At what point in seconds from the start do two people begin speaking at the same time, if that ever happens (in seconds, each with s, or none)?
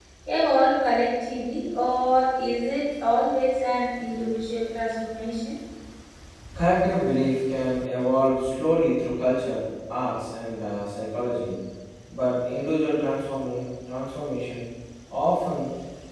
none